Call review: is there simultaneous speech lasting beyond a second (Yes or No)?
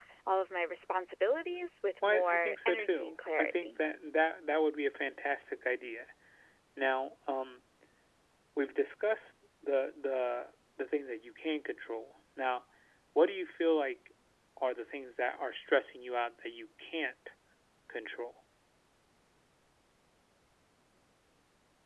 Yes